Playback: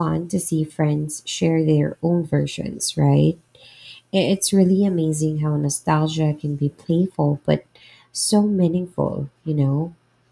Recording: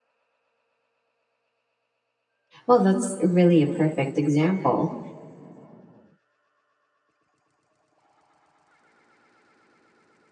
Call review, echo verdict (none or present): none